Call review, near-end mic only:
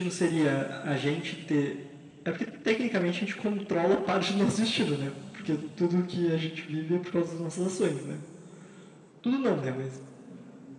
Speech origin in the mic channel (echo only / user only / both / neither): echo only